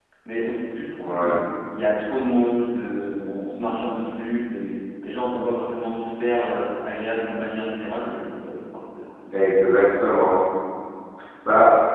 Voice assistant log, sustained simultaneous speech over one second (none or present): none